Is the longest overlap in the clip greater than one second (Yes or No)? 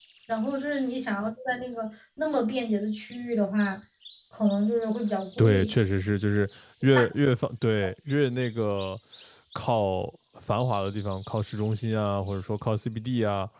No